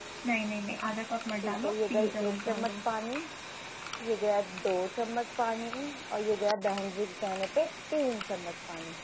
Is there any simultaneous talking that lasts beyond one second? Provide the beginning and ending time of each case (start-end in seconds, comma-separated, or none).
1.4-2.7